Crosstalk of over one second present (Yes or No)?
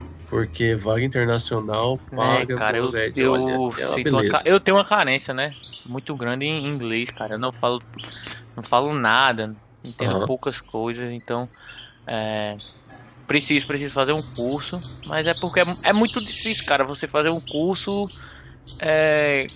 Yes